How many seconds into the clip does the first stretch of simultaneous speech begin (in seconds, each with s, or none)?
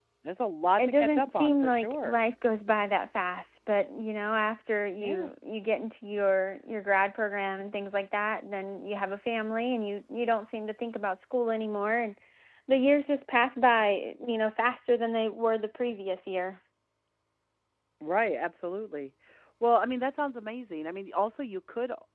0.8 s